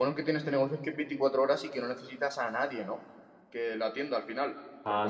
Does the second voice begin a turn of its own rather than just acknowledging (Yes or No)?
No